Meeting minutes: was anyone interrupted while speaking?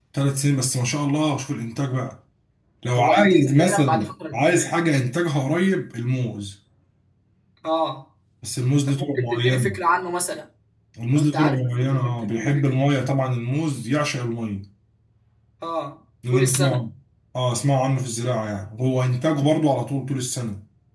Yes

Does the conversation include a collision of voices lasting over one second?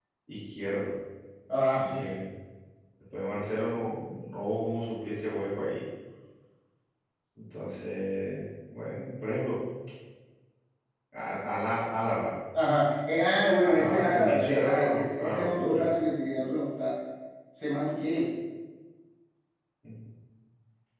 Yes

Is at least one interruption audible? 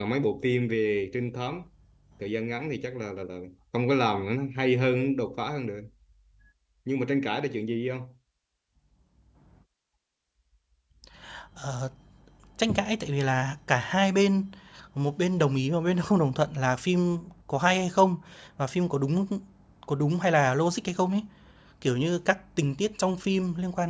No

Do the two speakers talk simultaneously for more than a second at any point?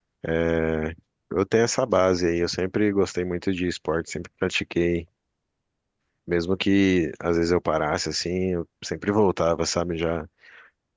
No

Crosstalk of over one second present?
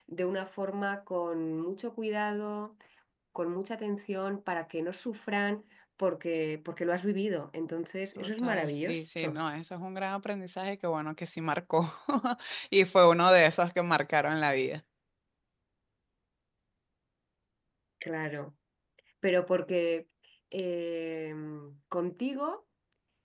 Yes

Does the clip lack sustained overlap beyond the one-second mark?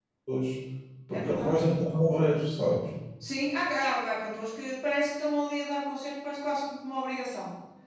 Yes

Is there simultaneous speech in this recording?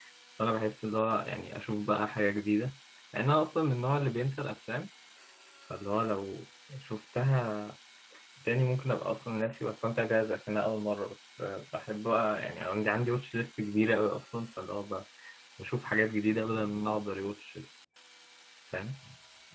No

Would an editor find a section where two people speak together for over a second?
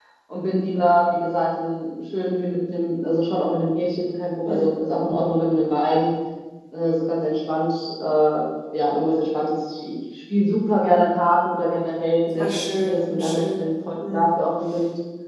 Yes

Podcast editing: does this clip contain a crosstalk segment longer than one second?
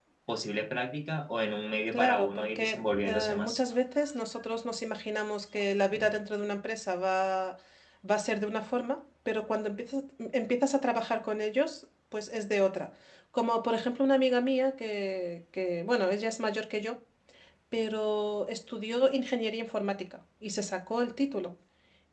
Yes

